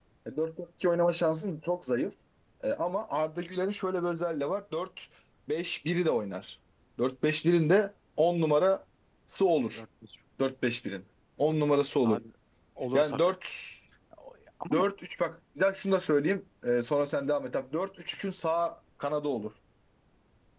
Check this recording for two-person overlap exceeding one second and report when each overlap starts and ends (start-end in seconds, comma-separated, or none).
none